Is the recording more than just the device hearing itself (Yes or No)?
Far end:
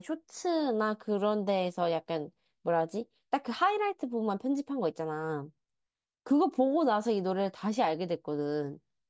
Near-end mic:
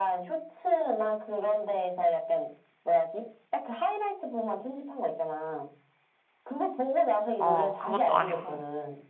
Yes